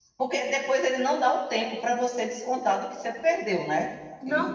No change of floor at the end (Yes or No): No